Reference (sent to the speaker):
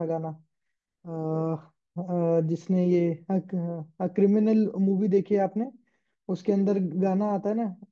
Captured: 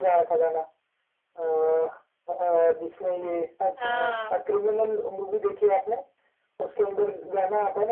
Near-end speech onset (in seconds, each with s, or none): 3.8 s